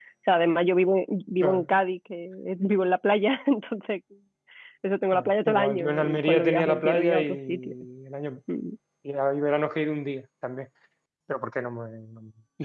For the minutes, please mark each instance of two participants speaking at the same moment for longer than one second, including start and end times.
5.1-7.7

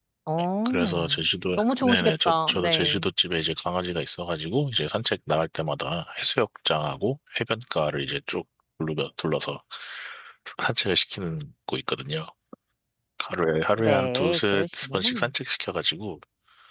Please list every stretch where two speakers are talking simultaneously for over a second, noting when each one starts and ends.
1.6-3.0, 13.8-15.1

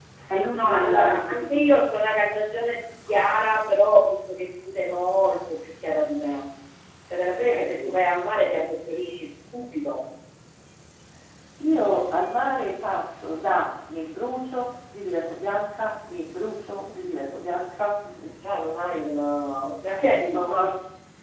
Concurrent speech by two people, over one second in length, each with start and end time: 0.5-1.9

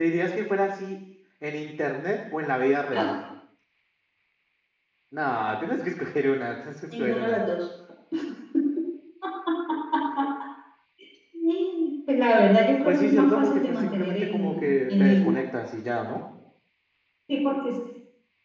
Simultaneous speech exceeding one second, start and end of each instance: 12.8-15.4

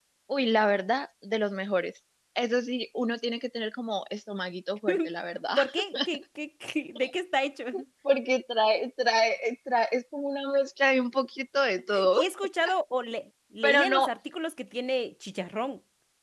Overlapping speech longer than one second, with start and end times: none

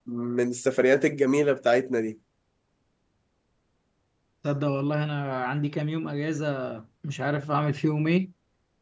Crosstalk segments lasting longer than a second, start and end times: none

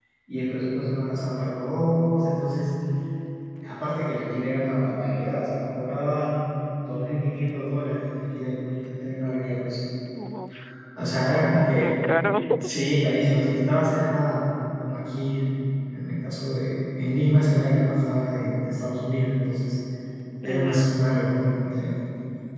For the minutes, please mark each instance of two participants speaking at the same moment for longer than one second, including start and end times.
none

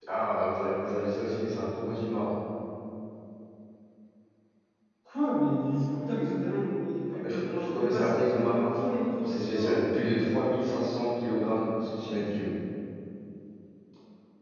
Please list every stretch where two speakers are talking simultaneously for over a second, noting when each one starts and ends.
7.2-10.2

